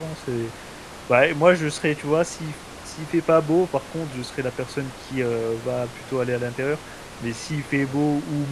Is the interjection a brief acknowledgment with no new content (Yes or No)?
Yes